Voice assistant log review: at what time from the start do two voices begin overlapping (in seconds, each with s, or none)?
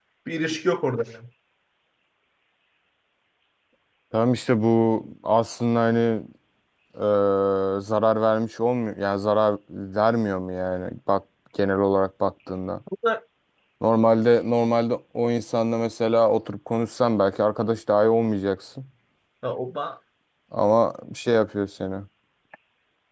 none